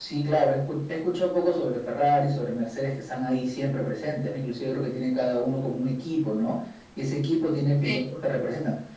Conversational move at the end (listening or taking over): listening